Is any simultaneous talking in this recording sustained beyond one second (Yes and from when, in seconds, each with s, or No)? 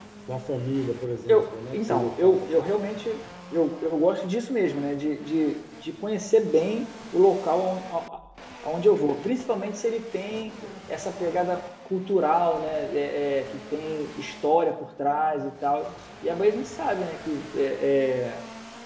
Yes, from 1.3 s